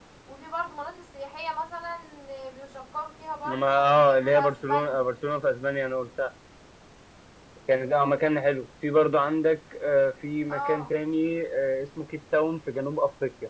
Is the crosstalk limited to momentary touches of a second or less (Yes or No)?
No